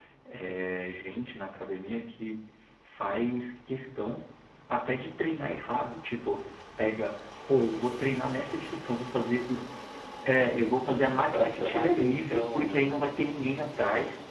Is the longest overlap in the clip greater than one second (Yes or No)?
Yes